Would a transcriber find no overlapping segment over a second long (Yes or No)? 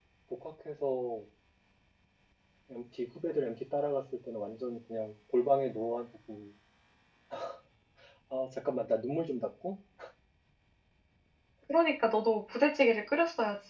Yes